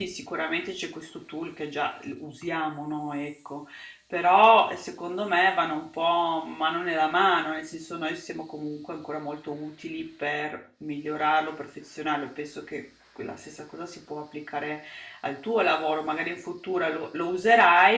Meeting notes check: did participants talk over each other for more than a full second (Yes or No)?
No